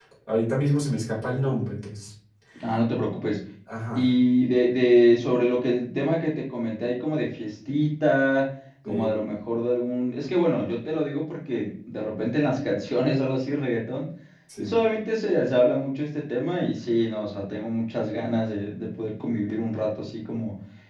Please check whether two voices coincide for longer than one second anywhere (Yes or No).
No